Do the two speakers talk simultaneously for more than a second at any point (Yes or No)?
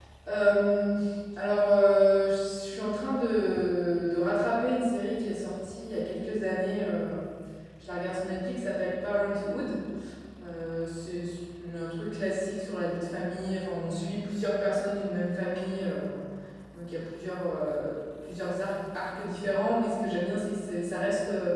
No